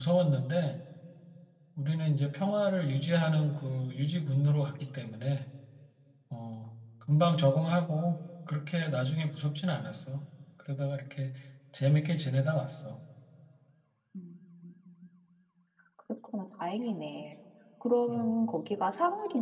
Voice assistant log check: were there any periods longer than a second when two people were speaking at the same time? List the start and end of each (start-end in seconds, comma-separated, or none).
none